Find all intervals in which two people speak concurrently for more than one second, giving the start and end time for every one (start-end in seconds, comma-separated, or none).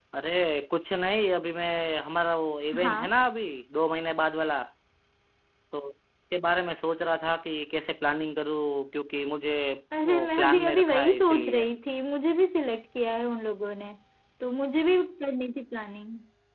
10.1-11.7